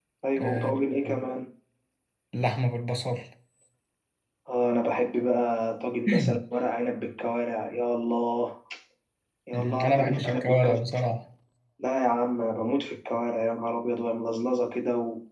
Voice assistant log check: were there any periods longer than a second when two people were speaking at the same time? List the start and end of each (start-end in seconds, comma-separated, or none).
9.5-10.8